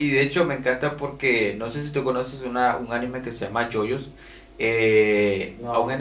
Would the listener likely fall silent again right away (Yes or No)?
Yes